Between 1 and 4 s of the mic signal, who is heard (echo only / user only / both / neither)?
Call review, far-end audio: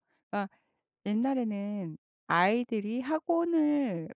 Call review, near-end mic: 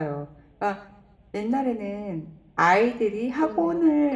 both